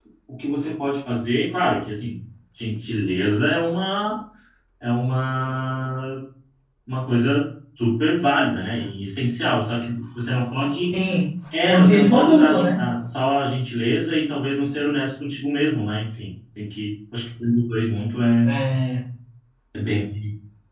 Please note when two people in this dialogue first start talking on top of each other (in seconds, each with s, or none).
11.6 s